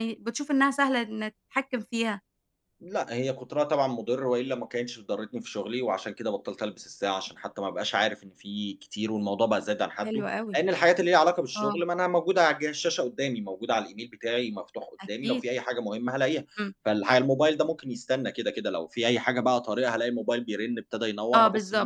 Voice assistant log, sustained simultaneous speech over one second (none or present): none